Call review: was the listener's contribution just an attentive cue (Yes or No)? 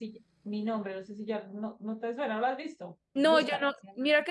No